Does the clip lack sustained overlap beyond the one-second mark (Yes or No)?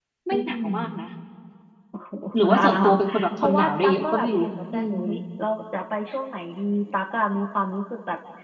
No